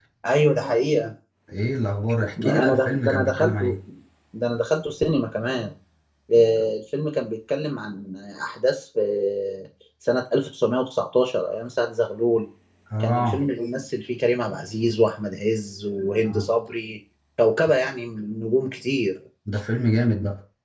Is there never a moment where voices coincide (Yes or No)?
No